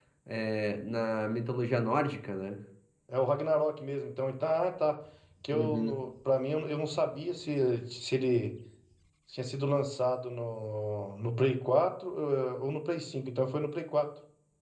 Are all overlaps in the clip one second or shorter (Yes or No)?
Yes